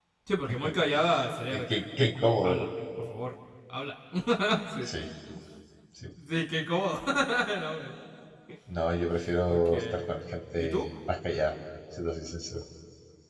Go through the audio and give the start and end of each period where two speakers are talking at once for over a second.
none

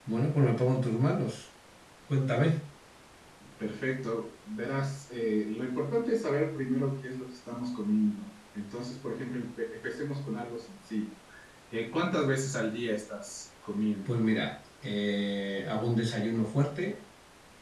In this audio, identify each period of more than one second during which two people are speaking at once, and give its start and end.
none

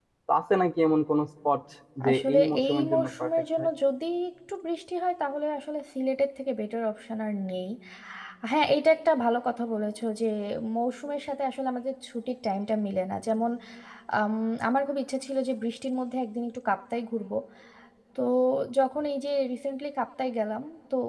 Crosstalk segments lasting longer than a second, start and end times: 2.1-3.7

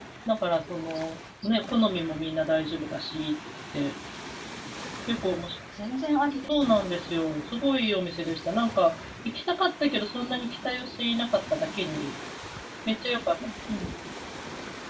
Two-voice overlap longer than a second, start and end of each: none

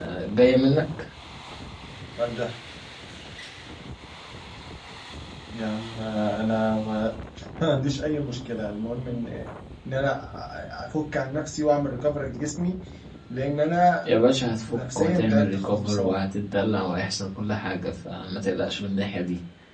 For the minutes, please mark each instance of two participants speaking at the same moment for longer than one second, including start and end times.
14.7-16.2

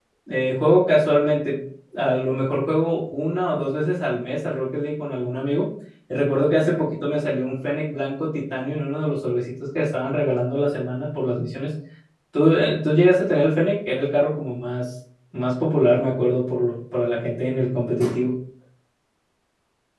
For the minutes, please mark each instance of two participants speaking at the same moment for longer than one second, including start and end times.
none

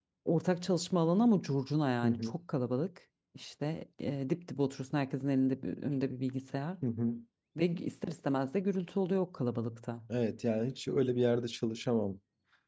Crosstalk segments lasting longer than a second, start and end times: none

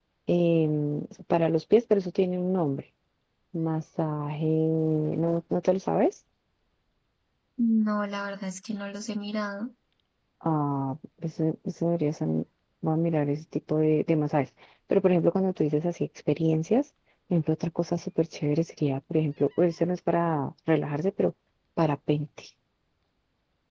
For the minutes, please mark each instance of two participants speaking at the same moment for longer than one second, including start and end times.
none

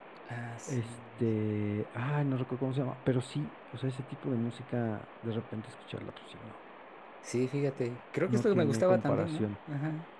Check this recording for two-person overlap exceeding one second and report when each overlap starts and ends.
8.3-9.5

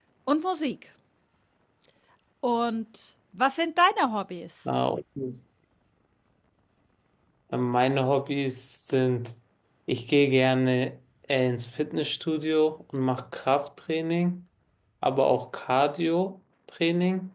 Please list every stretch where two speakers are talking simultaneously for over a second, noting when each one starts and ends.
none

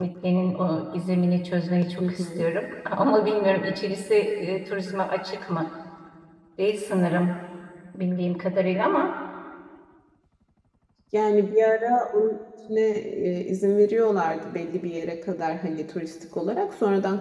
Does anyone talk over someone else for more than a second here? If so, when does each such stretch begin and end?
none

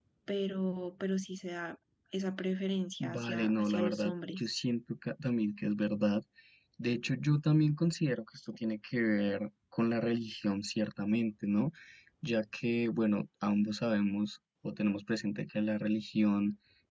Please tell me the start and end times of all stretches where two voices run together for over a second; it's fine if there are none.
3.0-4.5

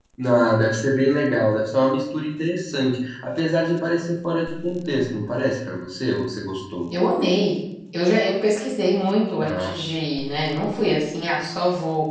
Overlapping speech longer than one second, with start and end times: none

